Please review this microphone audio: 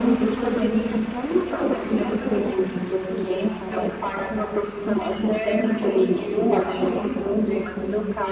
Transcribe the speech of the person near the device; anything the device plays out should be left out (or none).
none